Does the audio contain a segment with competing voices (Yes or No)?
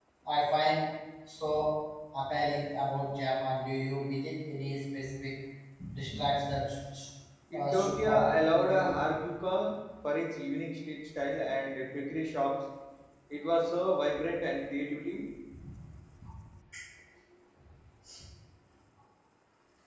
Yes